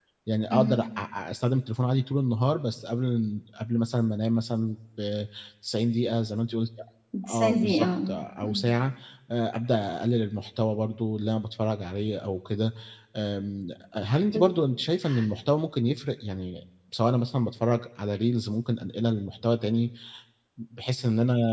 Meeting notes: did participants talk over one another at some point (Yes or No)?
Yes